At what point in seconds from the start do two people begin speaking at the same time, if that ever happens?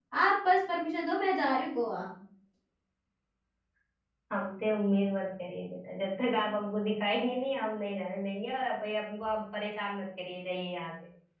none

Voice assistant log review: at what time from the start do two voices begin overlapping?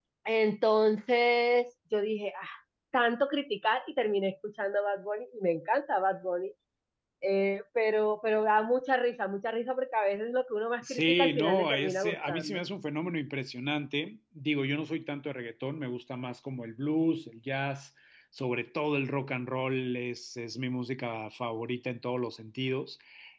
10.8 s

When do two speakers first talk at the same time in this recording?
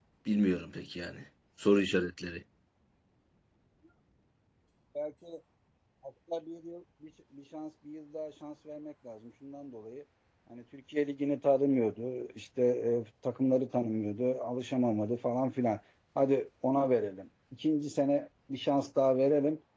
none

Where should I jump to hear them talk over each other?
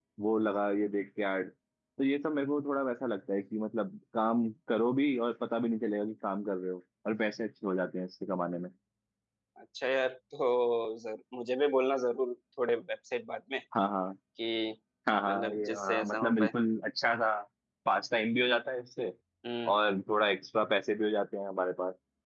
15.3 s

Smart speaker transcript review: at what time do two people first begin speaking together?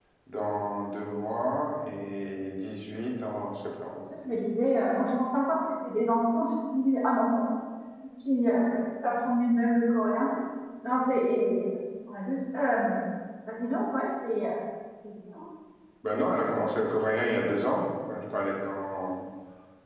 none

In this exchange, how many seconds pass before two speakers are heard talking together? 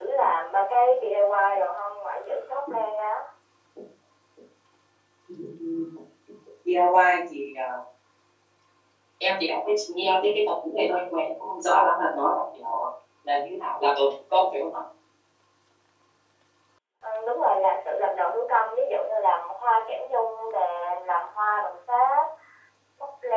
none

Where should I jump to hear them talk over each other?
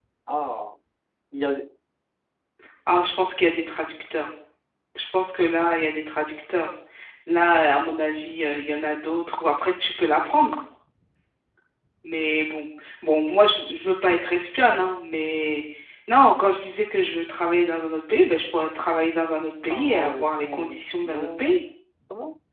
19.7 s

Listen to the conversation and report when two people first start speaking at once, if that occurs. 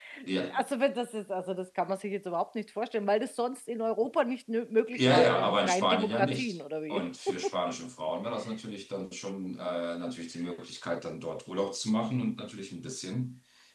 4.9 s

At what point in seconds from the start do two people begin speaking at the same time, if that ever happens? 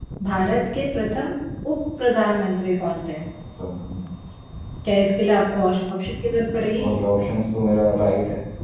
none

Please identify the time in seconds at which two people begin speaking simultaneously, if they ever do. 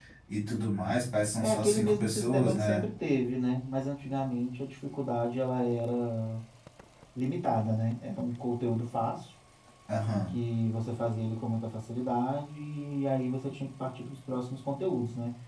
1.4 s

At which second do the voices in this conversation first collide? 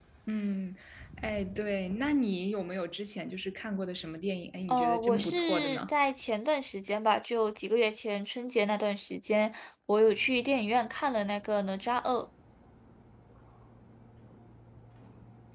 4.7 s

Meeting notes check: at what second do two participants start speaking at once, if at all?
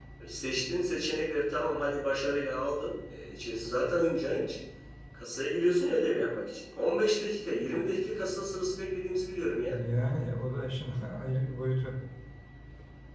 none

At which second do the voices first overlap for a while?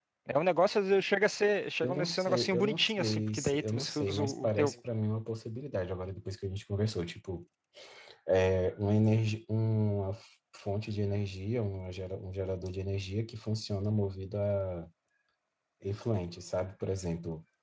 1.8 s

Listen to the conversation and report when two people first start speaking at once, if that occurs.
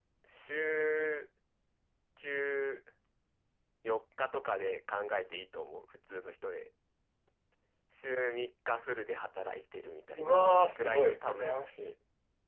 10.2 s

